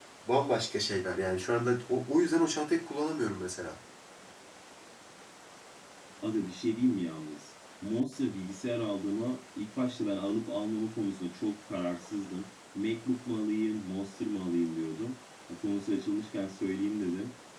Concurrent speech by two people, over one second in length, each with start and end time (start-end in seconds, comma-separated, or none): none